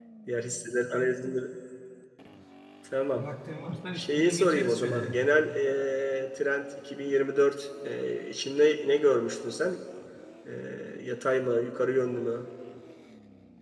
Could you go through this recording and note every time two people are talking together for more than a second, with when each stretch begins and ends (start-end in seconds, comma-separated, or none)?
4.0-5.2